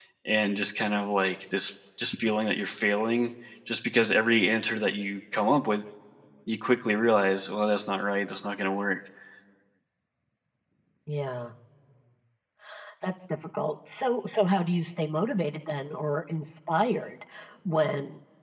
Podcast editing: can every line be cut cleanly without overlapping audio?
Yes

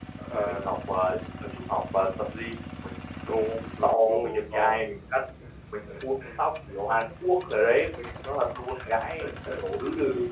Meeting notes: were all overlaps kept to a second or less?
No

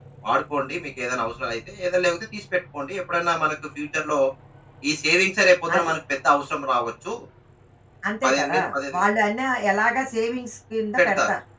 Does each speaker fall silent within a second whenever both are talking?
Yes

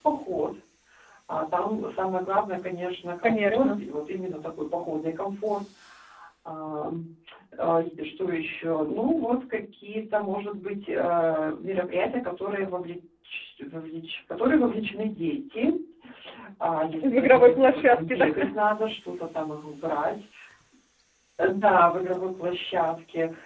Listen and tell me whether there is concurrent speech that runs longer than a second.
Yes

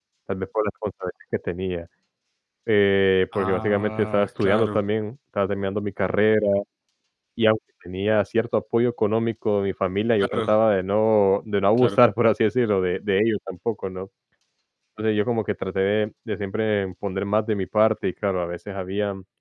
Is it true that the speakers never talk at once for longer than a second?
No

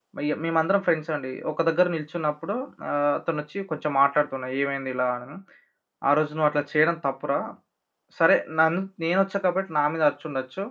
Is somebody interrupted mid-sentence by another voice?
No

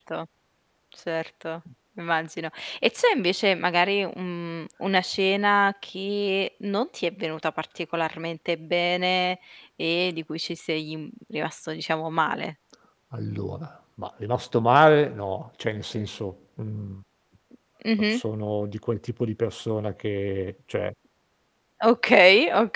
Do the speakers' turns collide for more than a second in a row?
No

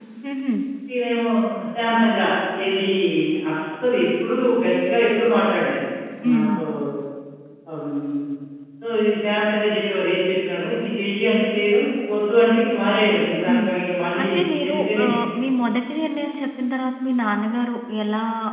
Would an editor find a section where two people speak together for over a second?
No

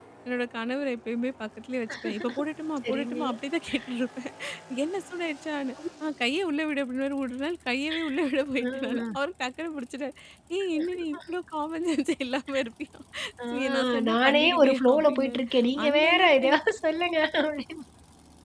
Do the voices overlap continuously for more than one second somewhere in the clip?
Yes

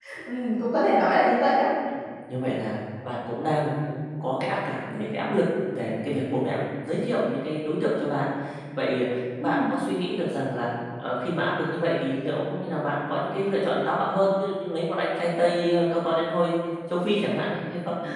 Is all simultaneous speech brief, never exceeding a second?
Yes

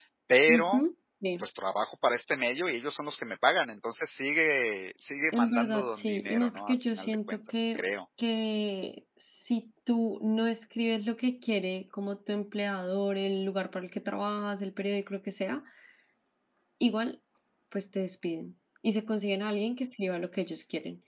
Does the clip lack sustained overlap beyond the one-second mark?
No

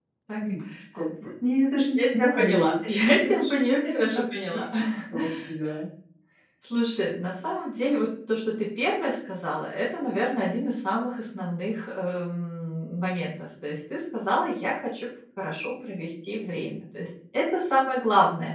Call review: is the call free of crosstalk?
No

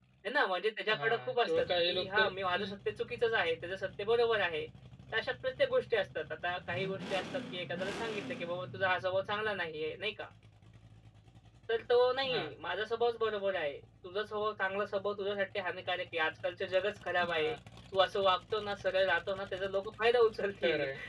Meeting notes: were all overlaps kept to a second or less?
No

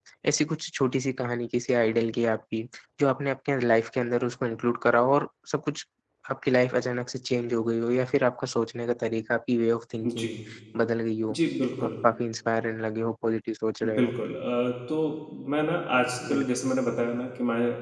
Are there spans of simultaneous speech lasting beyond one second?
No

